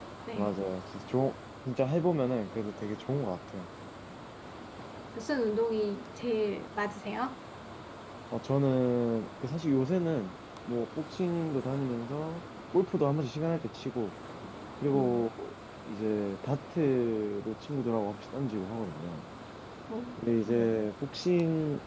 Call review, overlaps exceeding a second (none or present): none